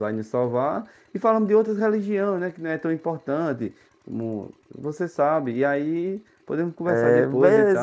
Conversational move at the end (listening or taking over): taking over